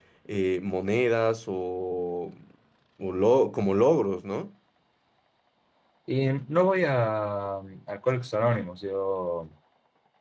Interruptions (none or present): none